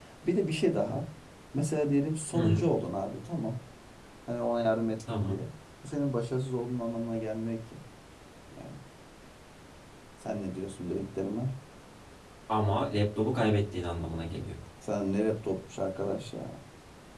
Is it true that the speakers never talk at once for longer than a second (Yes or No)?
Yes